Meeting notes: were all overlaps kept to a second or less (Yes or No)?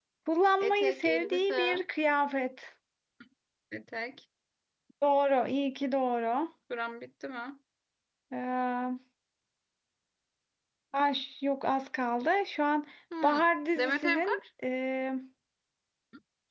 No